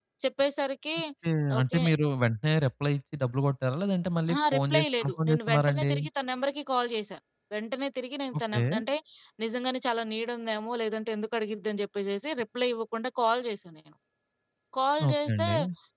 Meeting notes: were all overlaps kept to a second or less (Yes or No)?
No